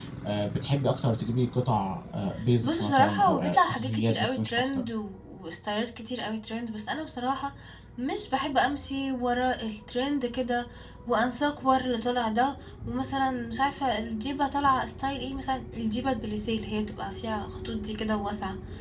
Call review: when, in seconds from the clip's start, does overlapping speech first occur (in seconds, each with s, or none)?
2.6 s